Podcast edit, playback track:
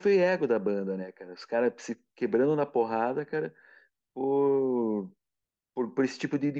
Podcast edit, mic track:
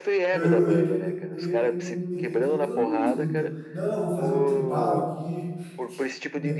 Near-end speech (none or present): present